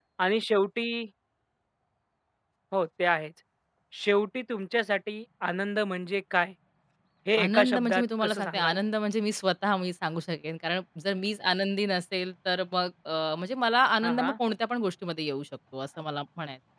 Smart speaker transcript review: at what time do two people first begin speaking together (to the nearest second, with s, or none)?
7 s